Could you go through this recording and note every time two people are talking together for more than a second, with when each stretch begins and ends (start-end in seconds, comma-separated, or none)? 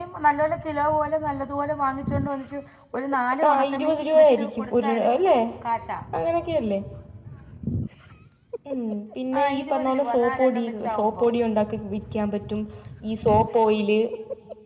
3.5-5.1, 9.4-11.2